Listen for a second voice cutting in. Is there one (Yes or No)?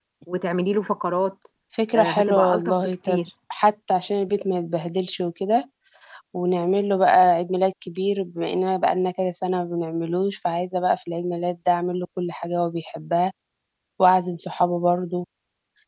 Yes